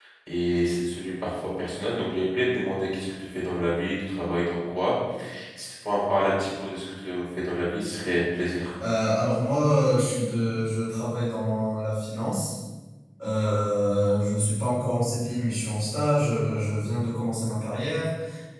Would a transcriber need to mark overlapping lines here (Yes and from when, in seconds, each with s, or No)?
No